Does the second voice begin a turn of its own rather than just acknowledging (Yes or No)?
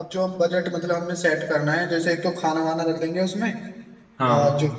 No